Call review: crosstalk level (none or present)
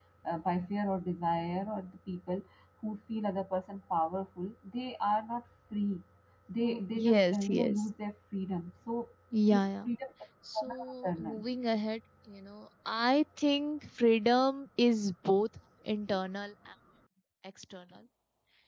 present